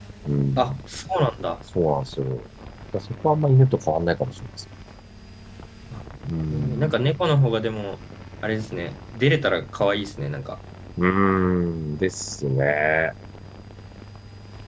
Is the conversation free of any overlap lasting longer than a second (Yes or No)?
Yes